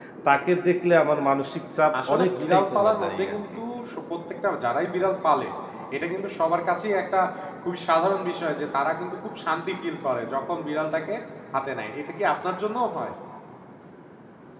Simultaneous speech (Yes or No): Yes